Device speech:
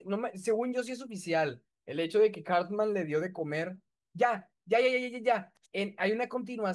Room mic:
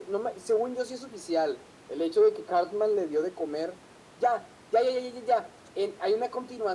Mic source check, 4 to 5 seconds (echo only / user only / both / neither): echo only